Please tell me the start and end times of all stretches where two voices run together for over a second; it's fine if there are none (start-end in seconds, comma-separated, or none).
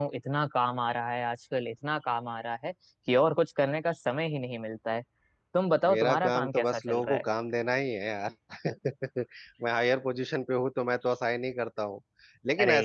5.9-7.2